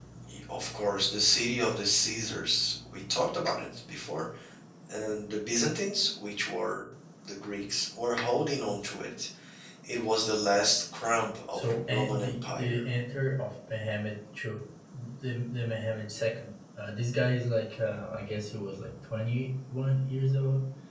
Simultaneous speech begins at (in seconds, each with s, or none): 11.5 s